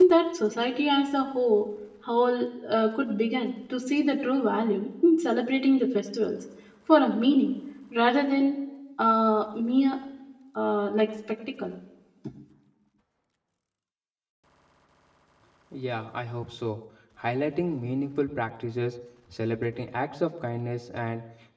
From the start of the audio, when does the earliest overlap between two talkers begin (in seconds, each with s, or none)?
none